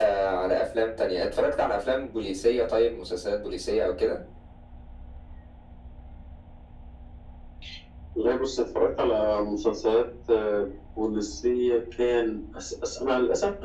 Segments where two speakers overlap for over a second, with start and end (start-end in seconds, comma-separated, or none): none